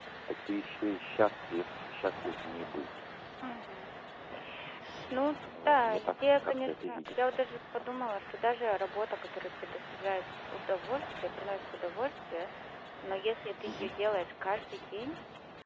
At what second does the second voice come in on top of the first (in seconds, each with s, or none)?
5.5 s